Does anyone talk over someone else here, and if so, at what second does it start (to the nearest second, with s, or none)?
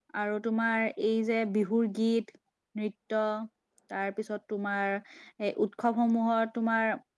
none